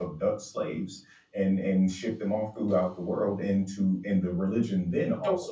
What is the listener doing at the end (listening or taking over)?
listening